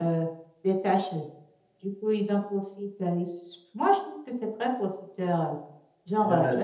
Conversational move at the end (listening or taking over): listening